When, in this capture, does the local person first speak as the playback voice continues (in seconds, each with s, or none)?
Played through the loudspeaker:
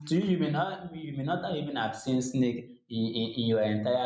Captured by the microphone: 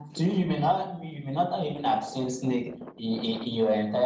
none